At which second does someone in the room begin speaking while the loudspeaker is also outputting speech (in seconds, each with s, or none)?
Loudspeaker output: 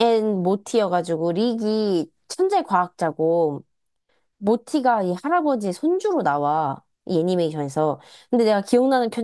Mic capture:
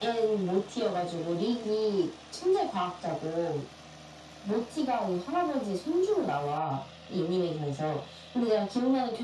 none